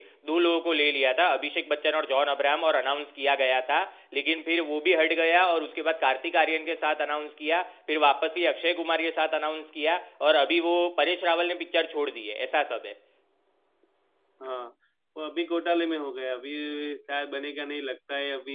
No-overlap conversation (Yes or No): Yes